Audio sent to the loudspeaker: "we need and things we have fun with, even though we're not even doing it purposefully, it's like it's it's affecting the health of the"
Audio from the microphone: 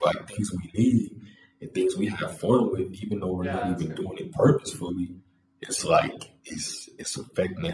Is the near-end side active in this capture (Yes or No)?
Yes